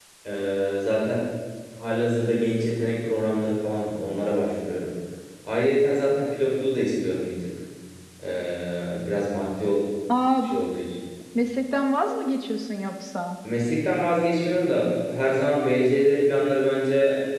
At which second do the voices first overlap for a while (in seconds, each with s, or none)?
none